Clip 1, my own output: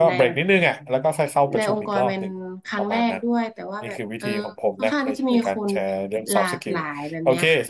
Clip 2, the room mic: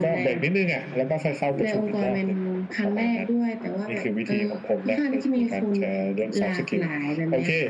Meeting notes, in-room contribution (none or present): none